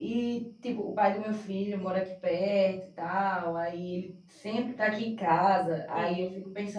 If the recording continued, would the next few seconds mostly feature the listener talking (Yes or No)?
No